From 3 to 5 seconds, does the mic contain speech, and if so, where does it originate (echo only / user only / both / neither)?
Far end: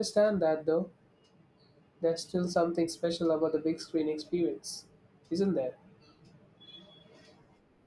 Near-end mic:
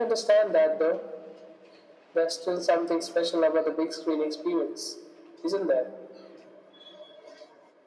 echo only